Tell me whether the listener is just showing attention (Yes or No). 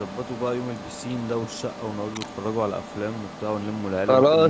No